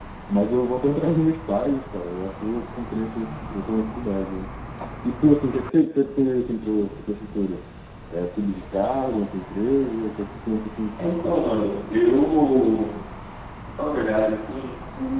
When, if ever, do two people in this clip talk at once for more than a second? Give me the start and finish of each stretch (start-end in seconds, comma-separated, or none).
none